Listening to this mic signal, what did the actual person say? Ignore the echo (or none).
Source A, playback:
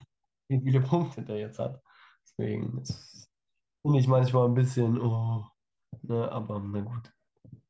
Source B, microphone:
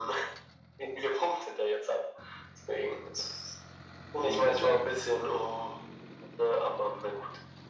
Ich wollte gerade sagen.